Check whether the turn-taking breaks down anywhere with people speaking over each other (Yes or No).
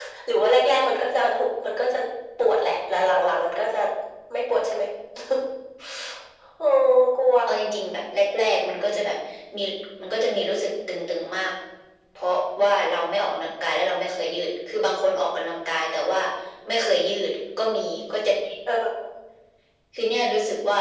No